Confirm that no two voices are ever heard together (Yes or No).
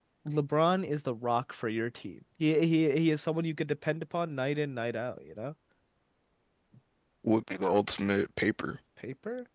Yes